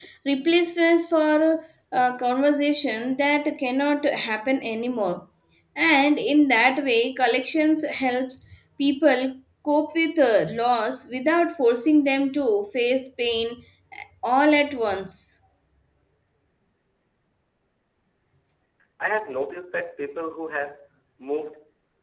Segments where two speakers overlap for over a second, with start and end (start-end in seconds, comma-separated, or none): none